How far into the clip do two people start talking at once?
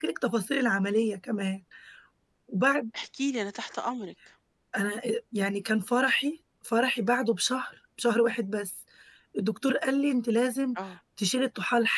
none

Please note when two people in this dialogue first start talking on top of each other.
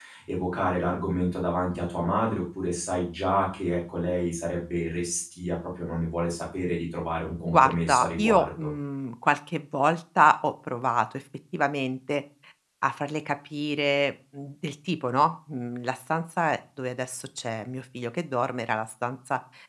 7 s

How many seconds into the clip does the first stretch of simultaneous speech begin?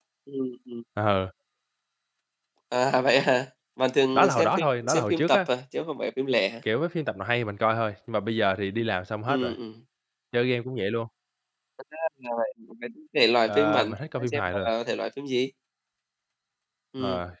4 s

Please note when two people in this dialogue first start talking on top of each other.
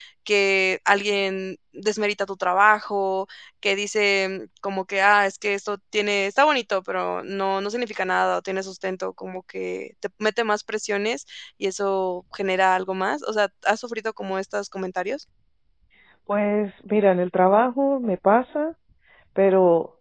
none

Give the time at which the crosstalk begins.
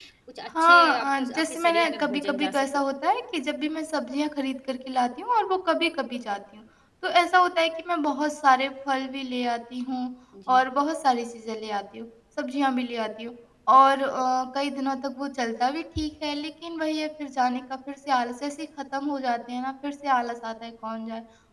1 s

